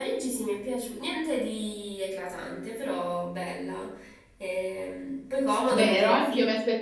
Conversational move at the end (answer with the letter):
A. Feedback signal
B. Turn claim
B